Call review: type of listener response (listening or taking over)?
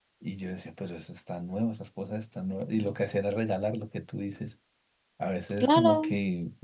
listening